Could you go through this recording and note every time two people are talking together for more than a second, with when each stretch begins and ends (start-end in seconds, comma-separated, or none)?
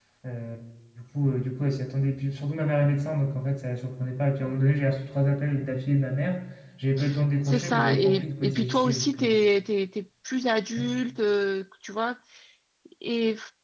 7.4-9.4